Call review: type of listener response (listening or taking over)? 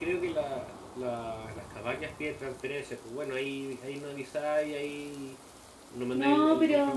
listening